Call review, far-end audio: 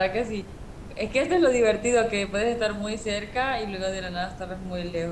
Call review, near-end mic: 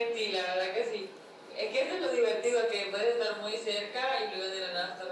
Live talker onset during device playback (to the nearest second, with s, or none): none